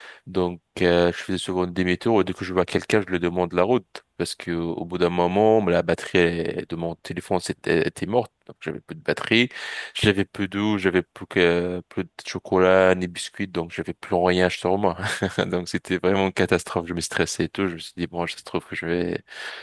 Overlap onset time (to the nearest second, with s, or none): none